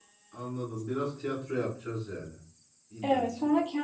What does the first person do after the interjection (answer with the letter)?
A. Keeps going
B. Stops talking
B